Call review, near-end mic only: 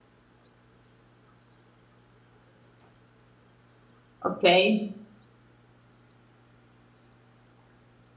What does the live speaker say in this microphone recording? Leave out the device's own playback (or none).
Okay.